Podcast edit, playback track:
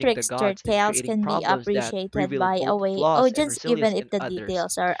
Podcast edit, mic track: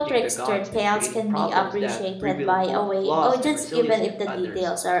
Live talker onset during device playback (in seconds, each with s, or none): none